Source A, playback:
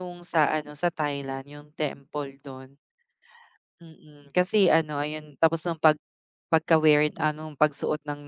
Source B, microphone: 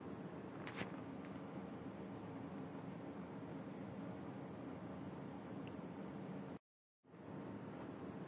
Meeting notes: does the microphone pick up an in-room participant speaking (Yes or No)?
No